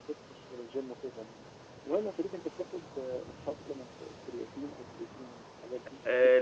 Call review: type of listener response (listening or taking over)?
taking over